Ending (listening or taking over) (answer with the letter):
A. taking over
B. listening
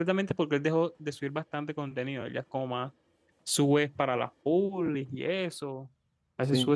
B